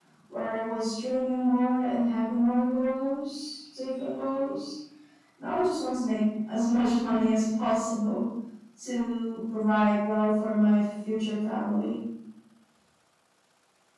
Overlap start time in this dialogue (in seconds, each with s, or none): none